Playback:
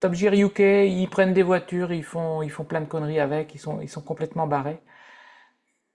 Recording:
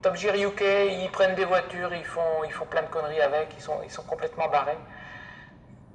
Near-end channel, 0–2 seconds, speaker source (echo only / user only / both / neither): echo only